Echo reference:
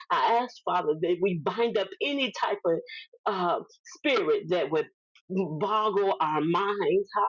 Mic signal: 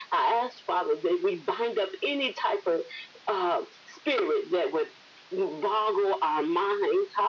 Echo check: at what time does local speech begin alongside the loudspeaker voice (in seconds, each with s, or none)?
none